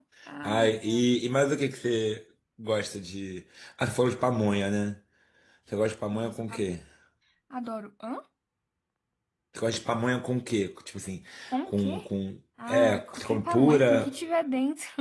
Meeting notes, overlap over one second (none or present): present